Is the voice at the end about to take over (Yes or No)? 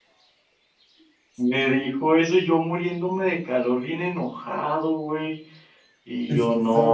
Yes